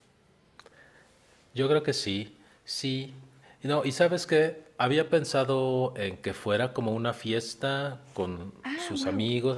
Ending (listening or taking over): listening